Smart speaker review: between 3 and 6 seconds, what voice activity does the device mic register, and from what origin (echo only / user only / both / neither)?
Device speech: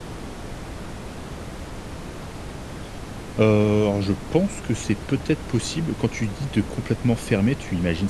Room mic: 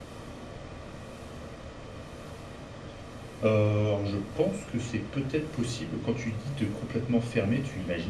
echo only